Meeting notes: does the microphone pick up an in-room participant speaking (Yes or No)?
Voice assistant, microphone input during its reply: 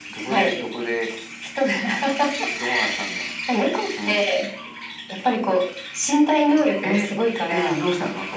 No